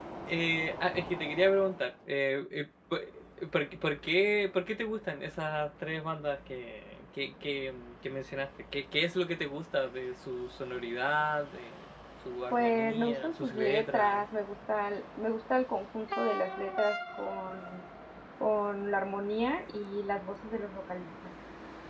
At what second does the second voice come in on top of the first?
12.5 s

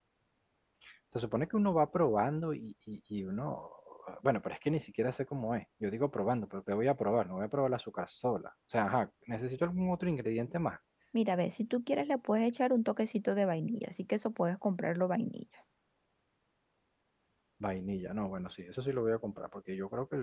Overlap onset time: none

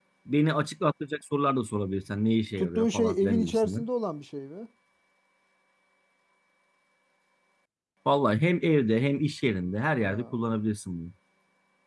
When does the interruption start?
2.6 s

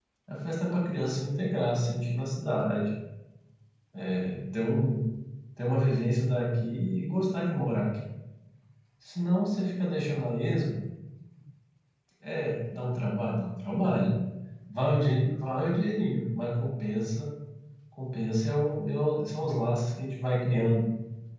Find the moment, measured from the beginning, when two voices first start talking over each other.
none

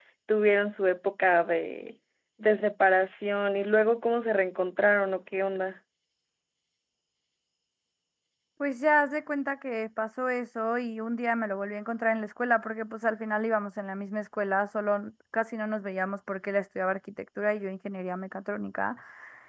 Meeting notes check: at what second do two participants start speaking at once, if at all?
none

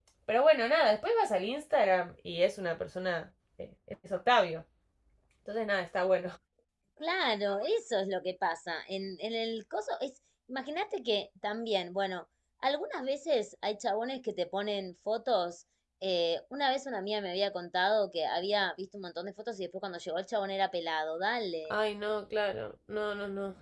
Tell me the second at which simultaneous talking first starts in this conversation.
none

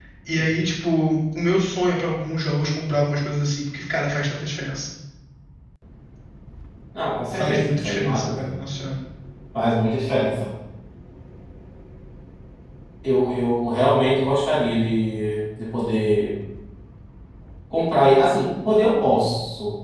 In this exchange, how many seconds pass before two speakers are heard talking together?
7.3 s

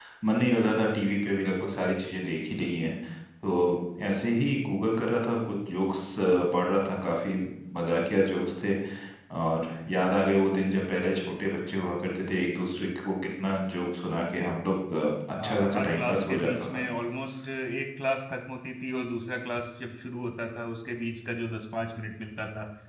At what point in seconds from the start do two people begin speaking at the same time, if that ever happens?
15.4 s

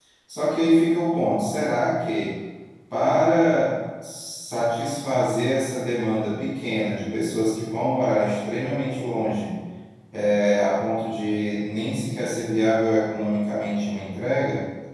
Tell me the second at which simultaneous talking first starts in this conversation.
none

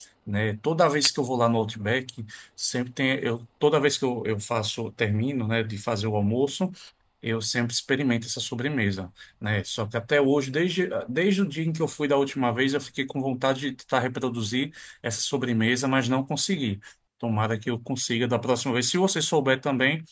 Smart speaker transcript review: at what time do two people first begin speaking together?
none

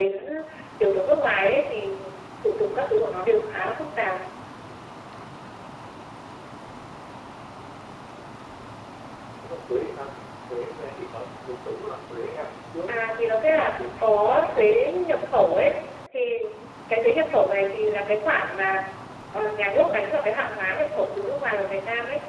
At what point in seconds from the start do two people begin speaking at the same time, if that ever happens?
12.9 s

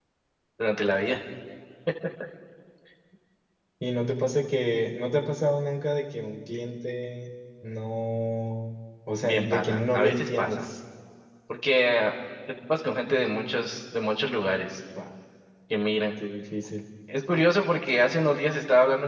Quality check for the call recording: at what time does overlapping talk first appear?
9.2 s

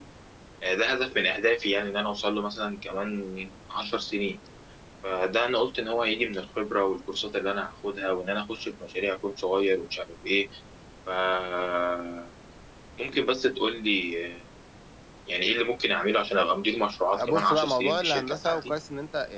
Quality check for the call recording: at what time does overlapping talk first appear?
17.1 s

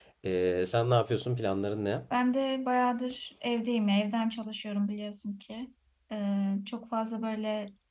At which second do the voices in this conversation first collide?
none

